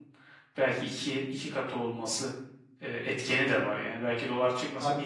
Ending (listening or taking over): taking over